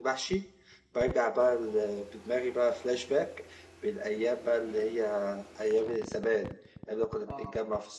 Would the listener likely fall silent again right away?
Yes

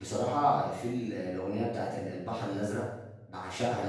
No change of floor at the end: Yes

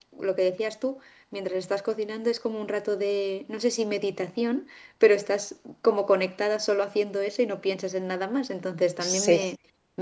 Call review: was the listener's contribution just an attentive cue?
Yes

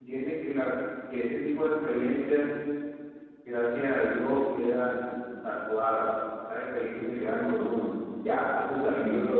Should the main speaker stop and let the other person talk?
No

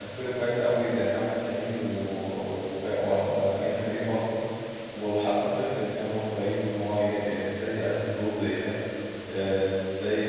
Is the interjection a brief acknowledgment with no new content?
Yes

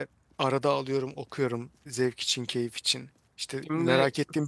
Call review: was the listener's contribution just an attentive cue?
Yes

